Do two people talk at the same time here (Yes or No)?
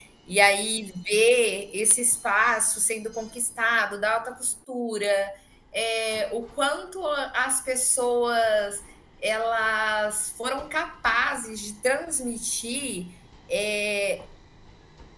No